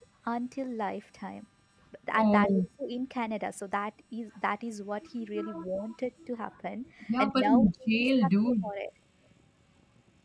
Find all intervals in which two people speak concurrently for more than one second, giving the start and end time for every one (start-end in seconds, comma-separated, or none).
7.1-8.7